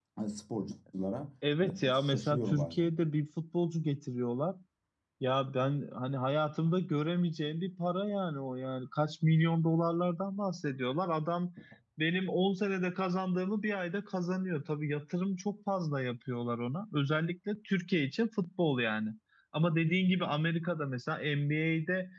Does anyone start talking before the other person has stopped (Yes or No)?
Yes